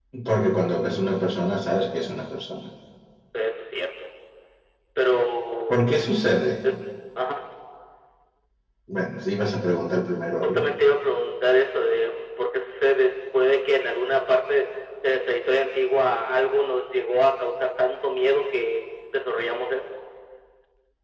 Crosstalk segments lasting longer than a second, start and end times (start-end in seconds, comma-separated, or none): none